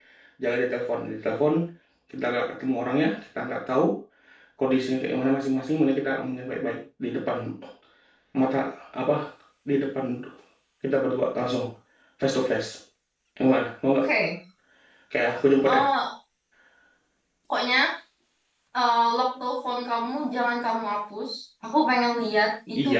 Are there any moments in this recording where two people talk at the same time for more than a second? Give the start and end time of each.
none

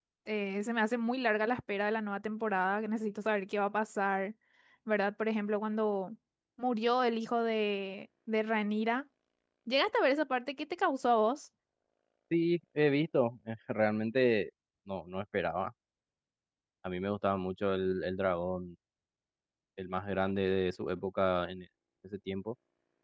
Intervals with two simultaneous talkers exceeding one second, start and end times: none

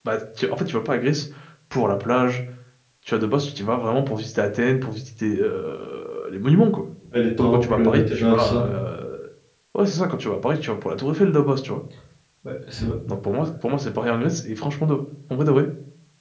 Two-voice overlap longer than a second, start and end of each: 7.4-8.6

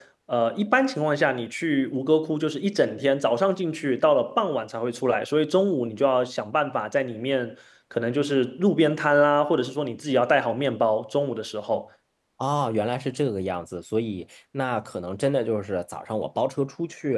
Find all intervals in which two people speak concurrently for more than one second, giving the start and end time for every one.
none

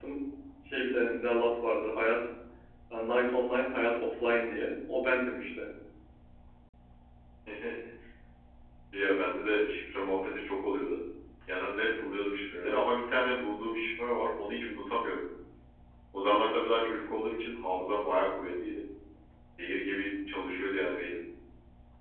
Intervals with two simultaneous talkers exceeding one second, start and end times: none

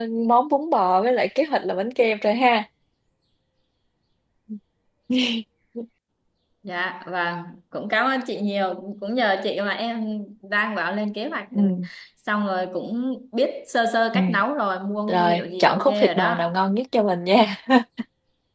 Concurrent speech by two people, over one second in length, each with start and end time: 15.1-16.5

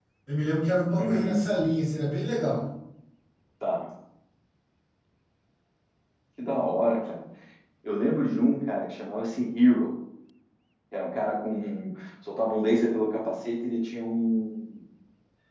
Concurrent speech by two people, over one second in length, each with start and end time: none

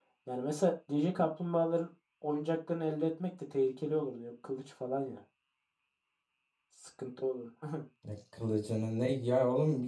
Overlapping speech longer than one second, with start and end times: none

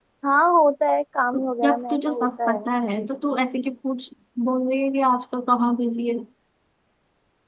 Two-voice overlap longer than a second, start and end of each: 1.3-2.6

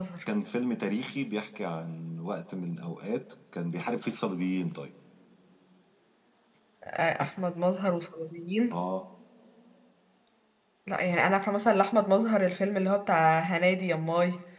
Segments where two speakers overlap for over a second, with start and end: none

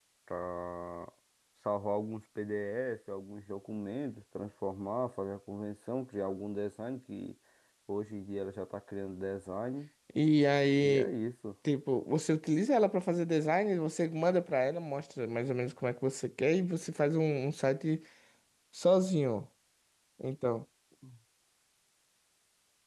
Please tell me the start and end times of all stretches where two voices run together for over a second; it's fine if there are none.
none

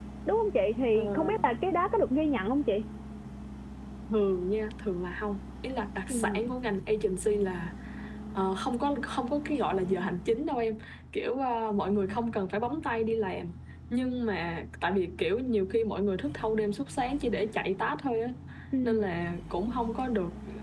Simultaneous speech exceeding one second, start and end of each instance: none

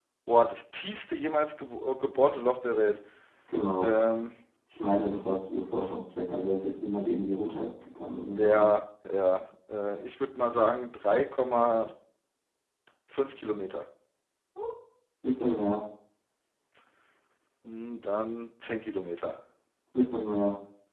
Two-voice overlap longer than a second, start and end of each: none

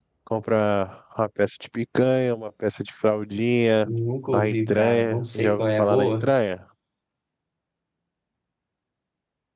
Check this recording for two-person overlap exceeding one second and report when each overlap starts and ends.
4.3-6.3

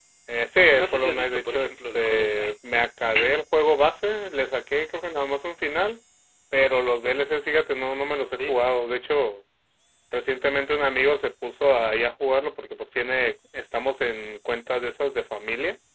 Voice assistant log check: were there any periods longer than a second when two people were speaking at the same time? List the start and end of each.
0.8-2.9

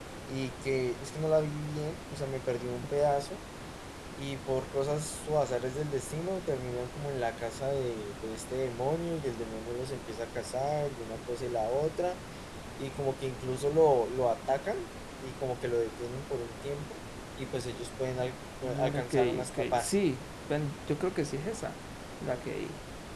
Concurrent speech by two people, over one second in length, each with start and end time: 18.6-19.9

